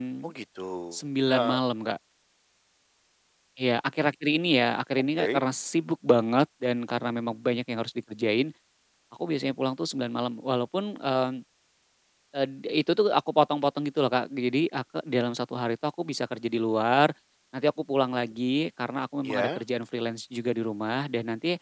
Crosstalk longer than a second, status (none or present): none